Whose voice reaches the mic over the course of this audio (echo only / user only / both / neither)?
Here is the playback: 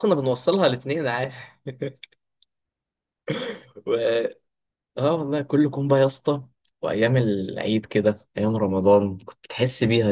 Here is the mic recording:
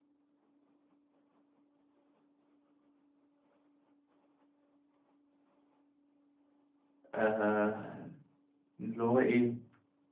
user only